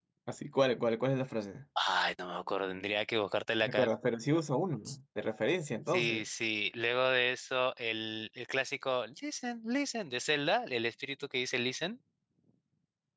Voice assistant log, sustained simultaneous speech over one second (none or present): none